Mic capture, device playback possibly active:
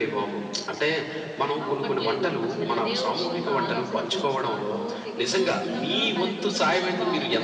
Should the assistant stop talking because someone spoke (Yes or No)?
No